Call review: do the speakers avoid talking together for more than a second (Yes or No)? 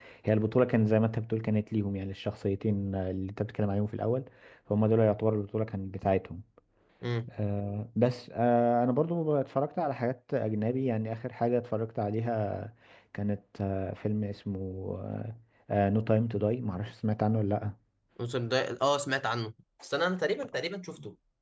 Yes